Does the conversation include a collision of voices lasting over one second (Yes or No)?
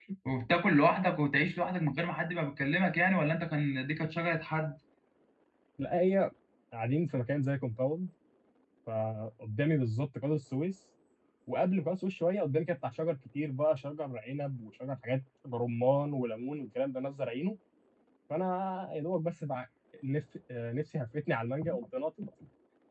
No